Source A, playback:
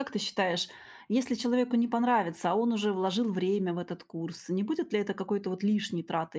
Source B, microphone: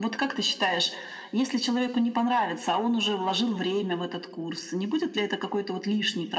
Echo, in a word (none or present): present